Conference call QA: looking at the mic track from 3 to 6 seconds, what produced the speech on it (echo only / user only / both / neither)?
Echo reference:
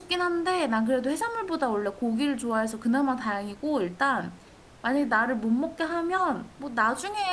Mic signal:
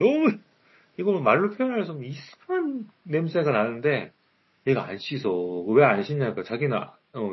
user only